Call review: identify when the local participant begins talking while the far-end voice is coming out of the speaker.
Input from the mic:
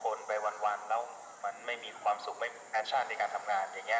none

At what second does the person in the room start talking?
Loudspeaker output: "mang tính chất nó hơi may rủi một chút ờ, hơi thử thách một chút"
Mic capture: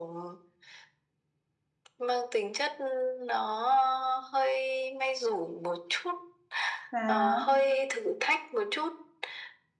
6.9 s

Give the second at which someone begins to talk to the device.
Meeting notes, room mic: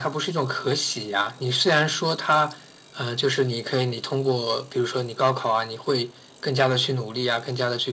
none

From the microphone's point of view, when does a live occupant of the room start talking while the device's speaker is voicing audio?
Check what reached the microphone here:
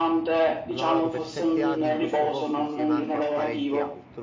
0.7 s

